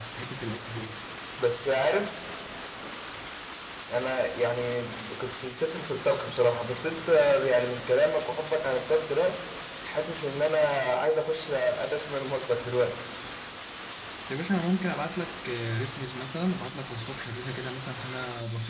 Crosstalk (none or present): none